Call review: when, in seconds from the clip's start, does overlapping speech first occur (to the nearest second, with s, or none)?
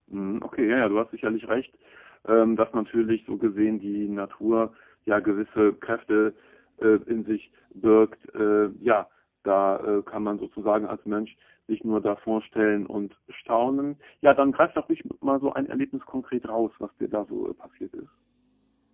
none